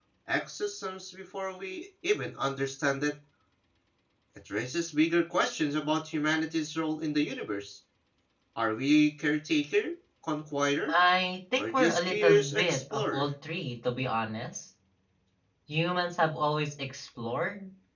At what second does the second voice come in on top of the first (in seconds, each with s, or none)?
11.6 s